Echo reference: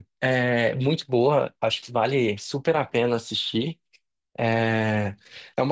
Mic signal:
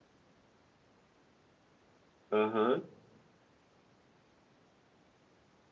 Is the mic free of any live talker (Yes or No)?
No